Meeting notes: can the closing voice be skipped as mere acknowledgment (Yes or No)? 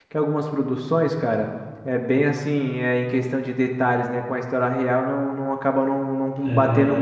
Yes